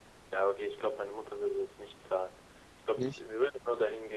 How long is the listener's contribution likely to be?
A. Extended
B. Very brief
B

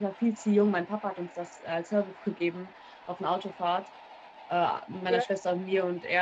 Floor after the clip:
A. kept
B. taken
A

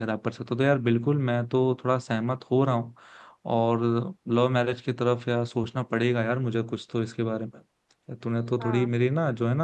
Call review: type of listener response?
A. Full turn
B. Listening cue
B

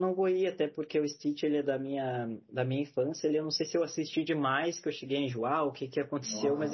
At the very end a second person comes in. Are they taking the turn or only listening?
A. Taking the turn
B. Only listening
B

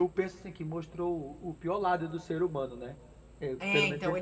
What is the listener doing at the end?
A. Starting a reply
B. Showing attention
A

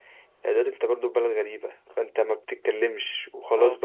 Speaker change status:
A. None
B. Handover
A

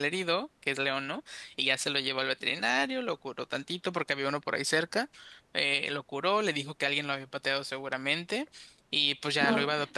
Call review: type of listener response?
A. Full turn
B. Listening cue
B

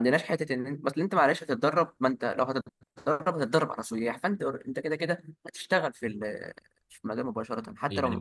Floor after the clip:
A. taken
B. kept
A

